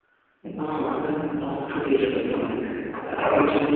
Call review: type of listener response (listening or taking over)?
listening